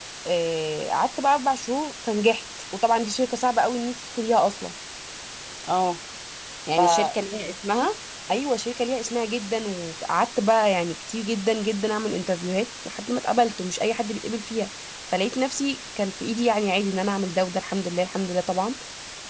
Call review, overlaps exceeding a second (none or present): none